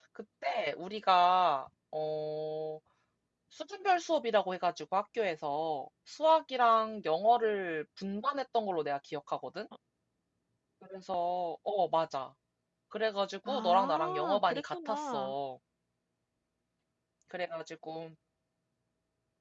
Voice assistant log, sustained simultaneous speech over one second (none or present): present